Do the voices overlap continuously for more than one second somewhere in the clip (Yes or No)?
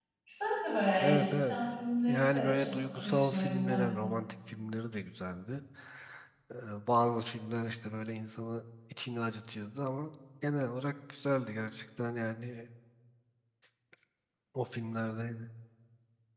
Yes